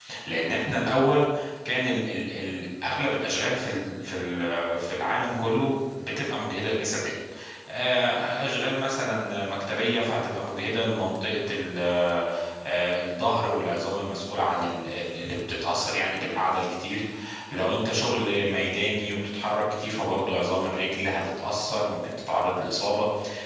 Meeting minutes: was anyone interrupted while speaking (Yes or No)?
No